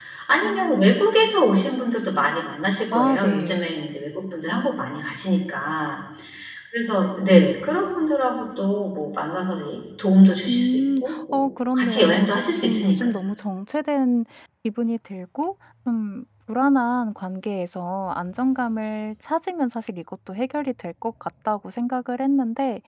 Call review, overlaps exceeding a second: present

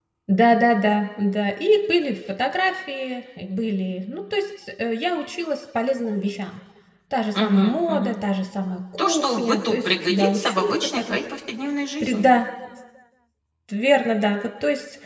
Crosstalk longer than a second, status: present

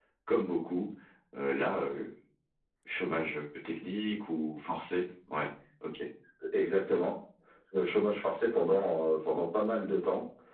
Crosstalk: none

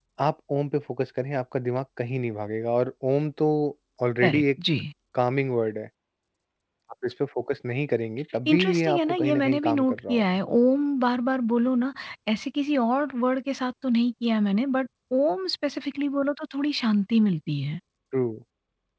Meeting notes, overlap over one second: present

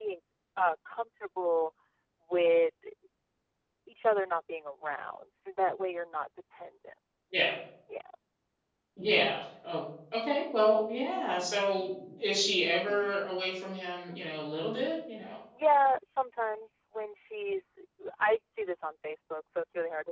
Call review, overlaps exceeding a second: none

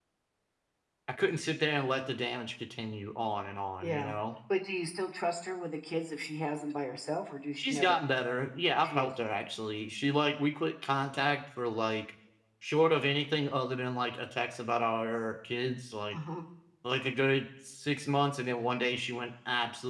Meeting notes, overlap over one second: none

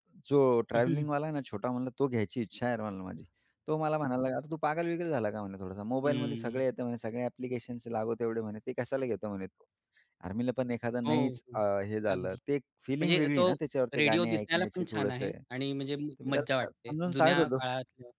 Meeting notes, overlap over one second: present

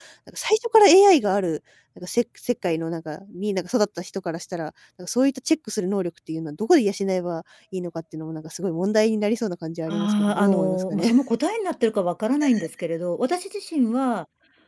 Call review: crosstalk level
present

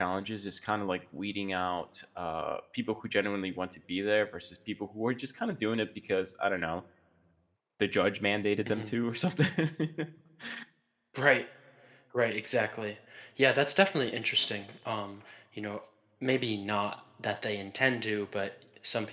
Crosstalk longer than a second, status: none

